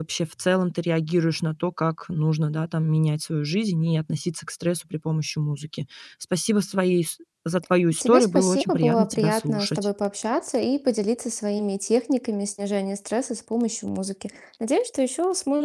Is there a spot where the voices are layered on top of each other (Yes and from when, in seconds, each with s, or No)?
Yes, from 7.9 s